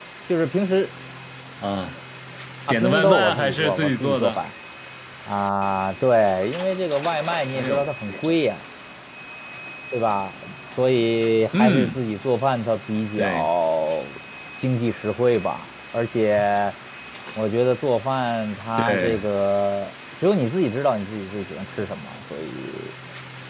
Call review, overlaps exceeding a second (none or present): present